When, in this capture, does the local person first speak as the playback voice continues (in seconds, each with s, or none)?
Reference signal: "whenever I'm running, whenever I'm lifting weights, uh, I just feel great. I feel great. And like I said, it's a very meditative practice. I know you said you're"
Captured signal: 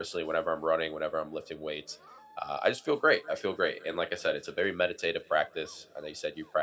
none